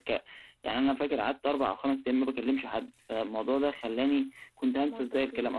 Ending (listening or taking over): listening